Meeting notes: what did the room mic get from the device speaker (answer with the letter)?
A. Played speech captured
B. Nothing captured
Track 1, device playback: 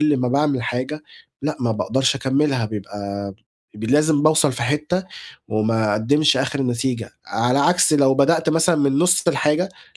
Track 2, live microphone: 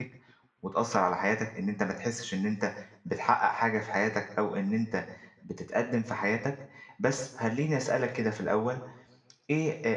B